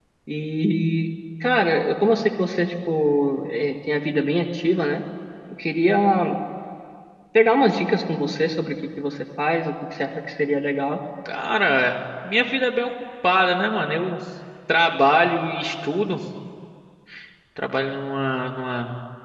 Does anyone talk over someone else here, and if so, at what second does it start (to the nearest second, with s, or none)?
none